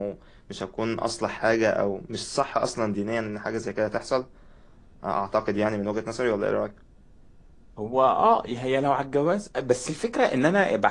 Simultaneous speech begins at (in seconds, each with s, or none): none